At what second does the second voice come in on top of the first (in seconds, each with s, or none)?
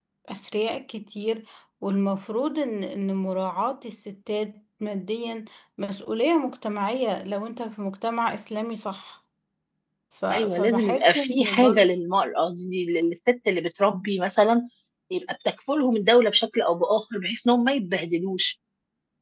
10.3 s